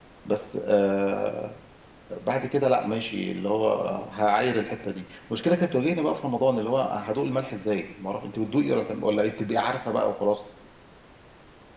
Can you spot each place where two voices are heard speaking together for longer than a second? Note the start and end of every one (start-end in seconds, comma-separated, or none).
none